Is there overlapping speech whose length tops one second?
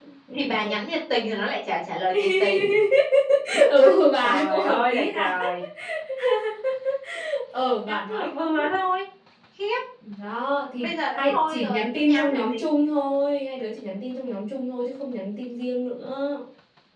Yes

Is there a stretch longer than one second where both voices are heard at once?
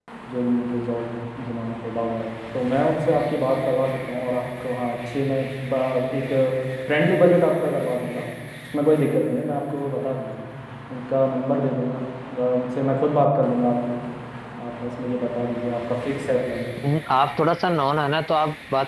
No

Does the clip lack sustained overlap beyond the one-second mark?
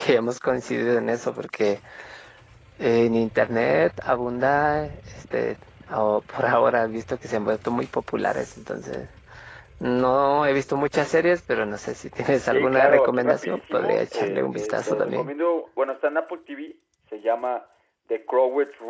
No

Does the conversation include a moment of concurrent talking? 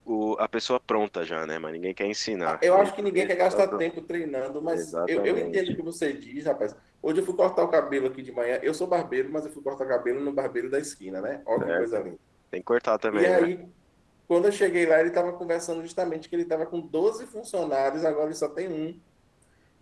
Yes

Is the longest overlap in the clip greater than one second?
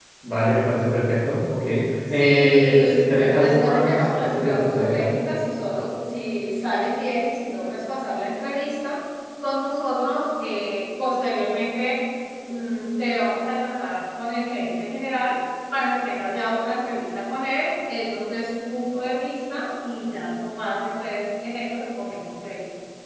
Yes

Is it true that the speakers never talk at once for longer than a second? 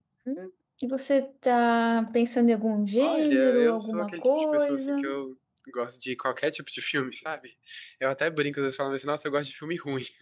No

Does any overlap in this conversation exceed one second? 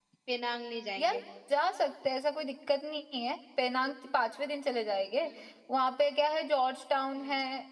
No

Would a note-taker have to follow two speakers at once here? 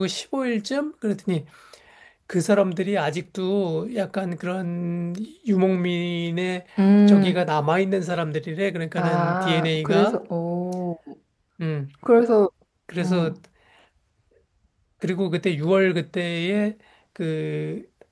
Yes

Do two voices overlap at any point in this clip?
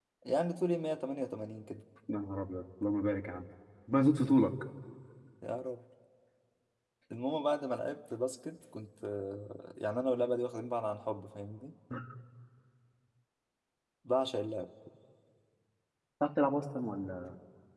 No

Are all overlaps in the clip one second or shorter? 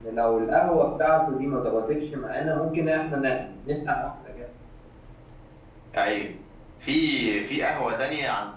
Yes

